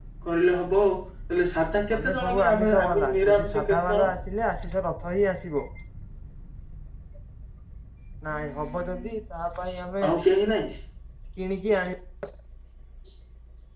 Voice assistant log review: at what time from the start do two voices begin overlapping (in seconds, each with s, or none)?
1.9 s